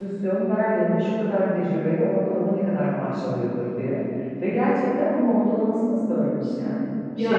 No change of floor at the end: No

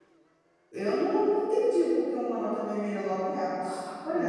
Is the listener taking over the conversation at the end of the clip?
Yes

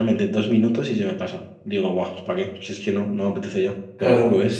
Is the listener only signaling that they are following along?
No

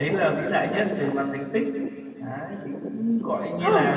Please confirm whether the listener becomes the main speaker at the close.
No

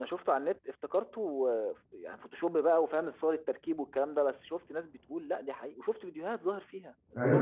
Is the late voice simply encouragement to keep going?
Yes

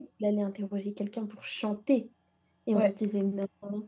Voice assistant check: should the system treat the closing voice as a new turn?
No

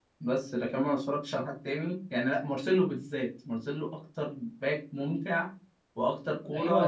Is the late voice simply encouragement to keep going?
No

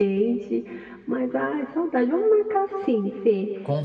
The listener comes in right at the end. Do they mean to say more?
No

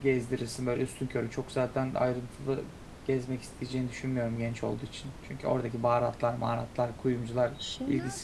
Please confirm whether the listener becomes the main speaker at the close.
Yes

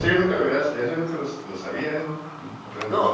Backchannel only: No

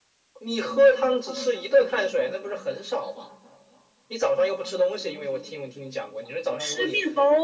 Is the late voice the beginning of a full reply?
Yes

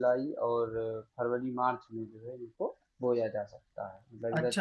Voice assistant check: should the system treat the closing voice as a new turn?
Yes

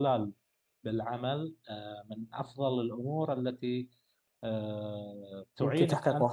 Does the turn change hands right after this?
No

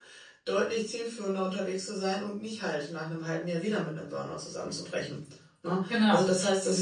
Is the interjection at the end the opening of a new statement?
No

